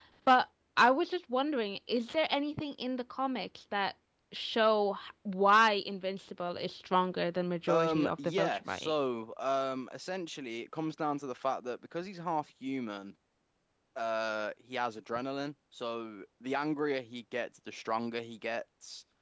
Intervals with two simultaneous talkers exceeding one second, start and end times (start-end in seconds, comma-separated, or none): 7.7-8.9